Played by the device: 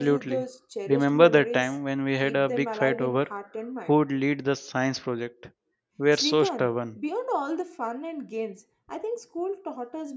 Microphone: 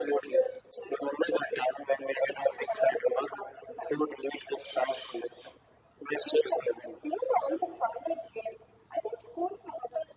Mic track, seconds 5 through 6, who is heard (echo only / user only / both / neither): echo only